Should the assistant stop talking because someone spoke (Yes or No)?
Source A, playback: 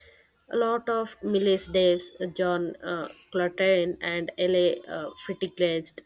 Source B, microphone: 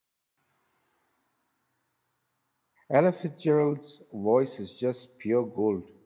Yes